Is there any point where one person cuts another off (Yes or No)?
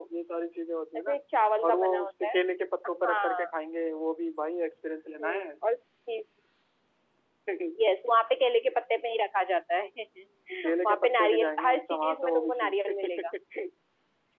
Yes